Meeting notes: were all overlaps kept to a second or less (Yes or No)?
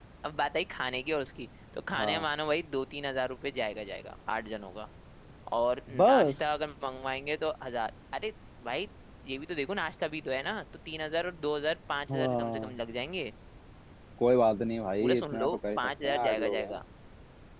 No